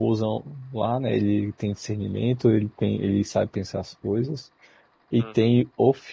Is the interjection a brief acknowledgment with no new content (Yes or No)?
Yes